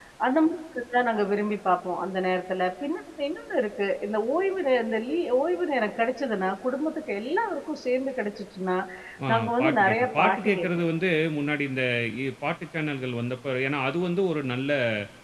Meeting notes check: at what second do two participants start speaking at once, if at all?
9.3 s

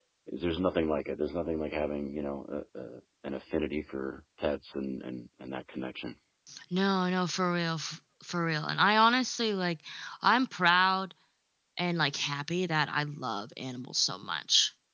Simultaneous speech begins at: none

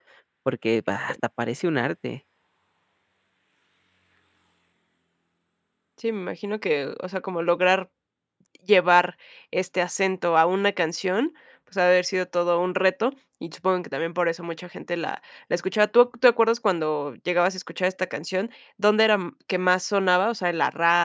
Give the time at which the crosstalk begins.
none

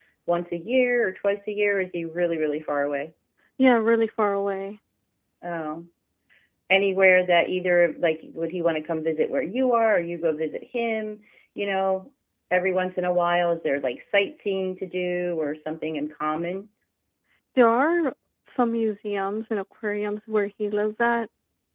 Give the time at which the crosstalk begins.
none

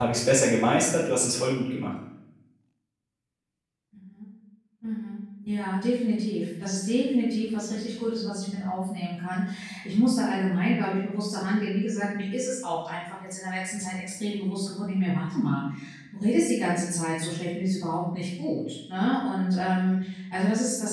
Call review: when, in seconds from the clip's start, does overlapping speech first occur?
none

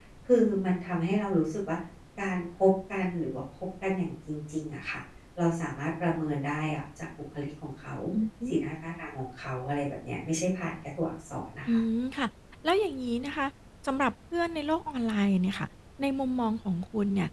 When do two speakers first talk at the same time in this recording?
none

